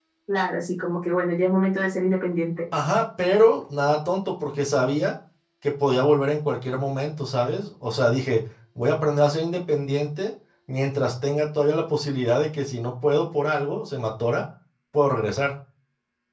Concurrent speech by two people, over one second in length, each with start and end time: none

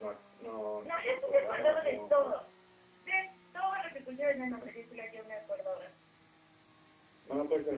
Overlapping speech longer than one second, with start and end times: 0.8-2.3

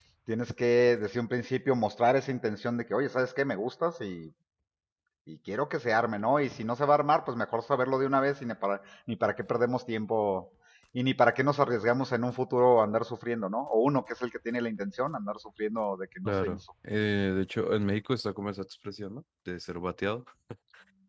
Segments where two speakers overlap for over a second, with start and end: none

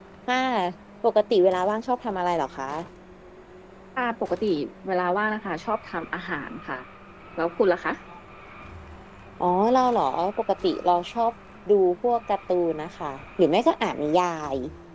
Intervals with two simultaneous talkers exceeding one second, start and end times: none

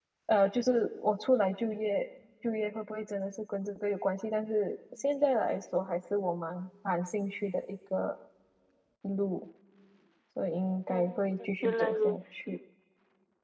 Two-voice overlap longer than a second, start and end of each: 10.9-12.6

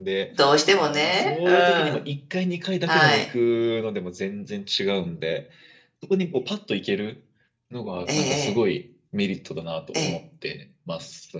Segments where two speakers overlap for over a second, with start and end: 0.8-2.0

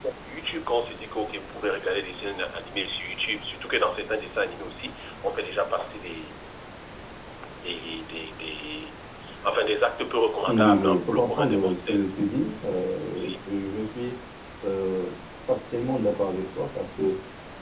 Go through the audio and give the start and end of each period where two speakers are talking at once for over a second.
10.5-12.0

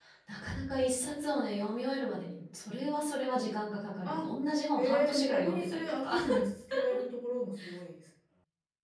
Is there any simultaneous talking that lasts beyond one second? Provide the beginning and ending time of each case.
4.8-6.1

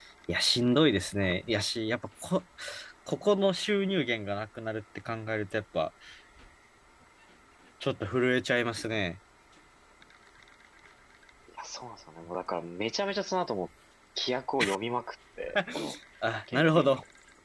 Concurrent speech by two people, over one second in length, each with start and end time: none

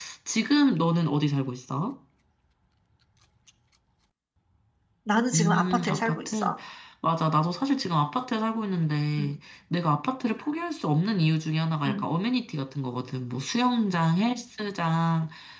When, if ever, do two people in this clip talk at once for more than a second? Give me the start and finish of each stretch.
5.3-6.5

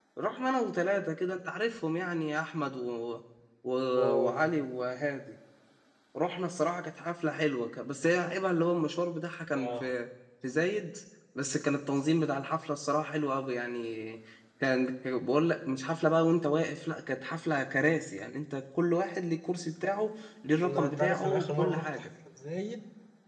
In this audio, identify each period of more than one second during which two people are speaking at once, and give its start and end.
20.6-21.9

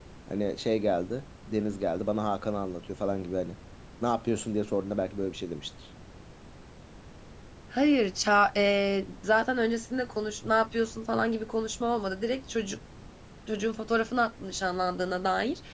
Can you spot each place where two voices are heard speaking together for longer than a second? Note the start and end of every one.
none

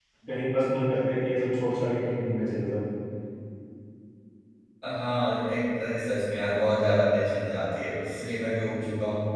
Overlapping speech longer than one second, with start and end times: none

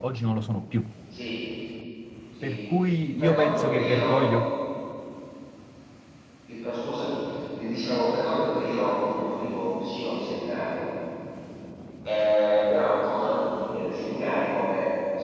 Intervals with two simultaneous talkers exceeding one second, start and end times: 3.2-4.4

